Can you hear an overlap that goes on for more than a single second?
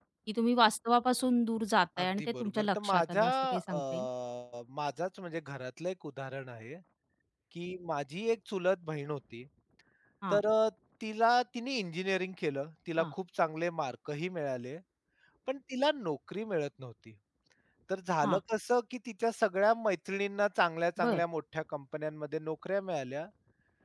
Yes, from 2.0 s

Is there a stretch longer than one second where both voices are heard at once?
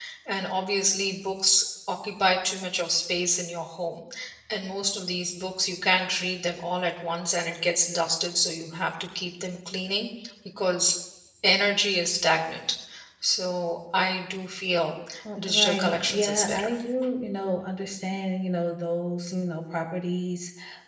Yes, from 15.5 s

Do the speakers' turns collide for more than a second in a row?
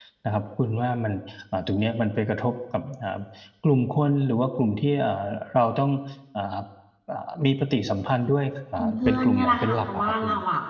Yes, from 8.8 s

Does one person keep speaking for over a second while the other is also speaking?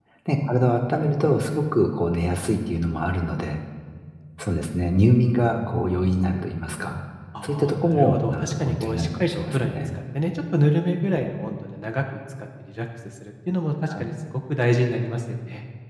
Yes, from 7.4 s

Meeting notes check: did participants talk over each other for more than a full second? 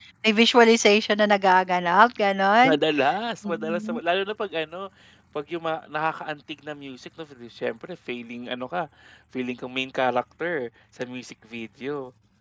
No

